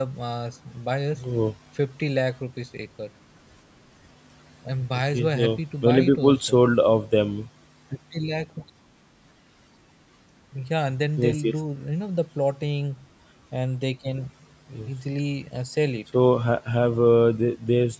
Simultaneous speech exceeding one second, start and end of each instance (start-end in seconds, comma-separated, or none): 5.1-6.6